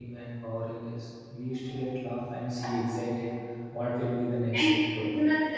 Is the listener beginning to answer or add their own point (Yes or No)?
Yes